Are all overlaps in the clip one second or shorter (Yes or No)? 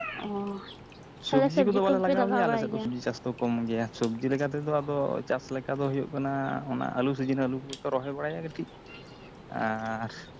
No